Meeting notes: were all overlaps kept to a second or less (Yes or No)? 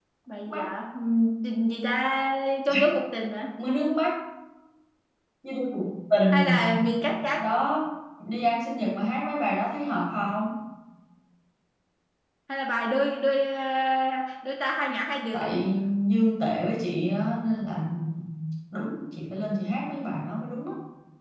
Yes